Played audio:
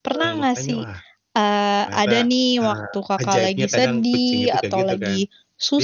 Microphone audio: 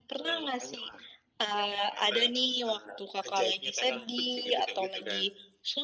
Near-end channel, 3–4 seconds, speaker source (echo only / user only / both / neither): echo only